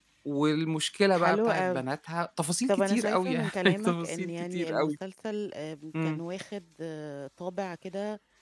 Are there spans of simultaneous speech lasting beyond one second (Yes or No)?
Yes